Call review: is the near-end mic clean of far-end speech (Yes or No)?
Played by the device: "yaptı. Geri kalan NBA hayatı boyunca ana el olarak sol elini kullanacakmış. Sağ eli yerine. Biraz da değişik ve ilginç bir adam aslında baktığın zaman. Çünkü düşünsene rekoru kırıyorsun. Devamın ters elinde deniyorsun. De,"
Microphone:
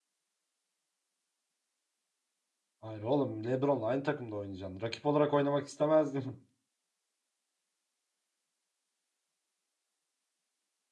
Yes